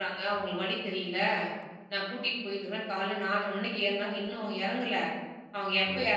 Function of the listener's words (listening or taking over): listening